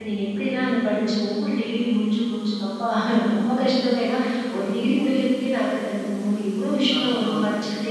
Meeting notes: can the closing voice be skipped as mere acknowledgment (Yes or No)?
Yes